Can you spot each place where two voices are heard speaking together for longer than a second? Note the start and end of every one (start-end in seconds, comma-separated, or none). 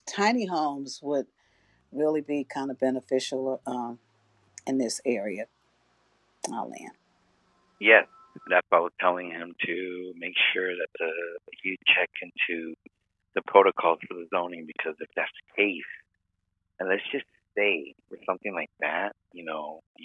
none